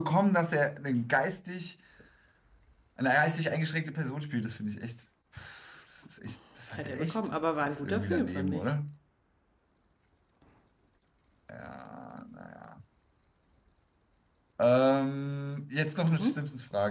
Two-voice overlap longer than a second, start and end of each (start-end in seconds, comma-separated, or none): 6.8-8.7